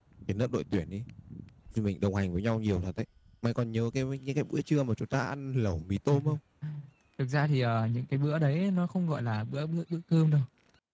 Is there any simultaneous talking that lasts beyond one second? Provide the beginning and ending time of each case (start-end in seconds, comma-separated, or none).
none